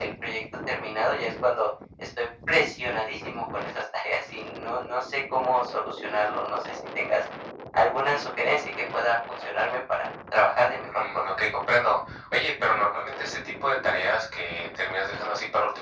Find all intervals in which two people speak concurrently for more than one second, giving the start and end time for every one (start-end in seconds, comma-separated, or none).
none